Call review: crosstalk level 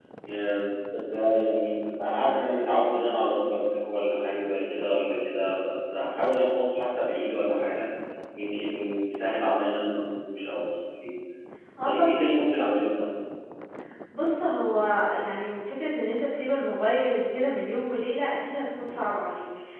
none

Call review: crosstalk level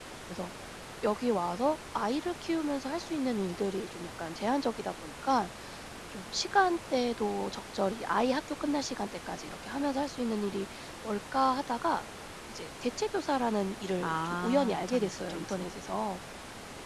present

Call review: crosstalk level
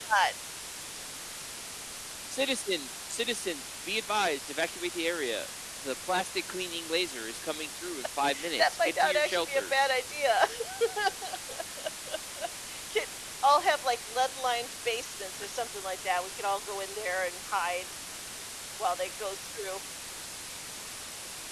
present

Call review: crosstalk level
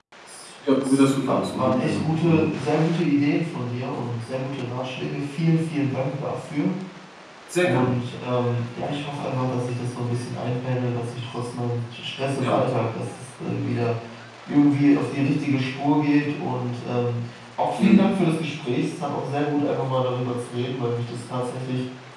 present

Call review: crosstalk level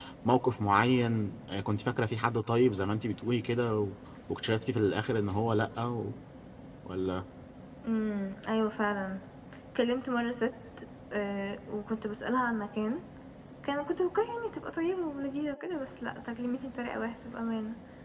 none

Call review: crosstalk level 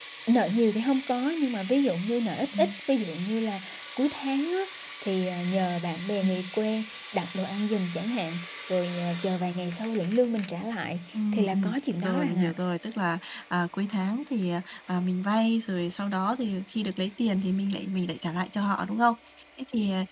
present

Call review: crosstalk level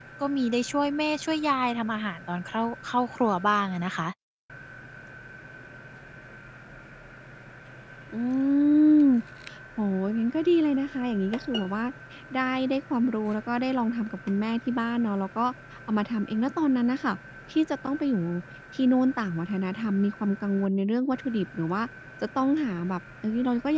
none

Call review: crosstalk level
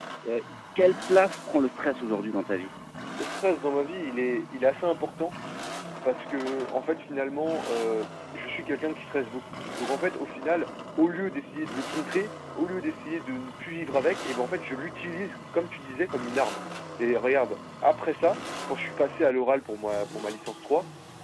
none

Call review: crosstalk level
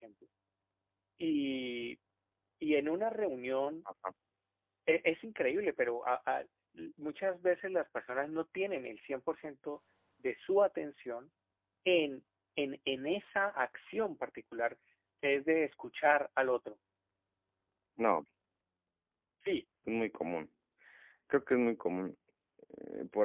none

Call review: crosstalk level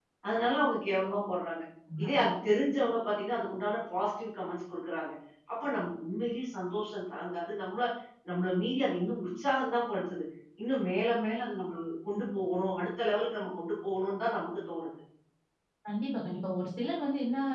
none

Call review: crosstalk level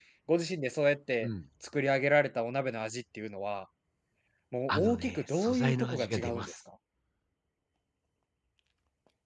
present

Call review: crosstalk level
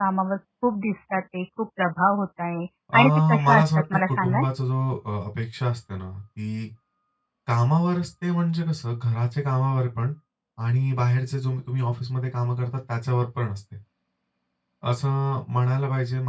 present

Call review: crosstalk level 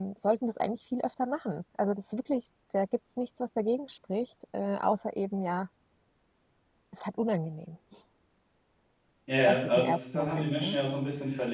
present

